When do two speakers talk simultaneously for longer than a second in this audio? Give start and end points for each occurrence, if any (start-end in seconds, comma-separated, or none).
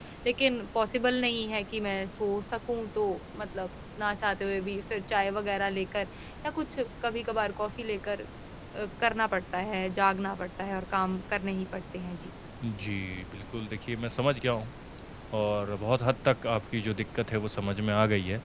none